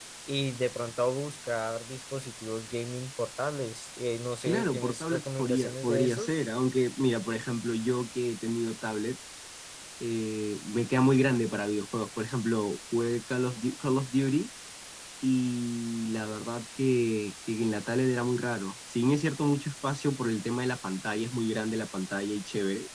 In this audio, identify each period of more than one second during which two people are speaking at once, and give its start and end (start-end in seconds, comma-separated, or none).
4.4-6.4